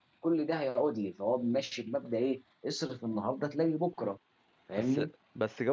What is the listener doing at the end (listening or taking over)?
taking over